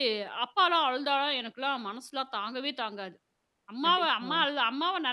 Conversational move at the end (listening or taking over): listening